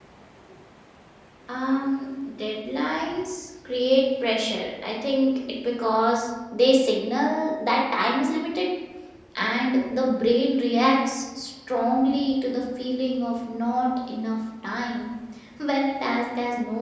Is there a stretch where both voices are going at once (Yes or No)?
No